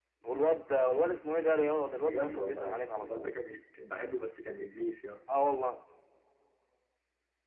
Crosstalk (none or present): present